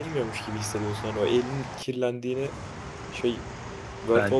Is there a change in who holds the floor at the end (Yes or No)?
Yes